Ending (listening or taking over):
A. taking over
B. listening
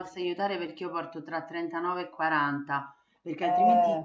B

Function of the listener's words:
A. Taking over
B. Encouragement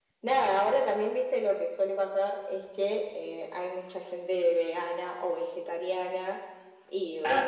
B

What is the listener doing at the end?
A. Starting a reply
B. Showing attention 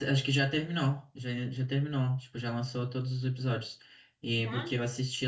B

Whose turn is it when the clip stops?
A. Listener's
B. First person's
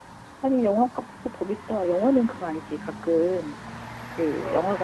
B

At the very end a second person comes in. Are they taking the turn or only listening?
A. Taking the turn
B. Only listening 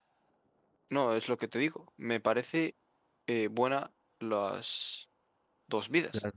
A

